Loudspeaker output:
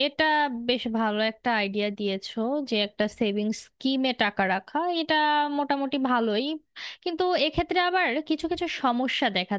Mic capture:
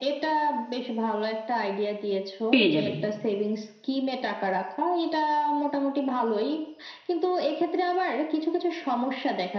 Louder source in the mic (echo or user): user